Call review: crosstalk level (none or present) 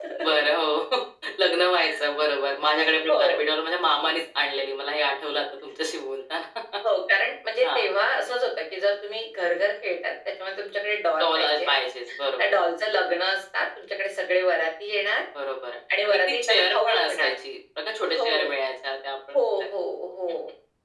present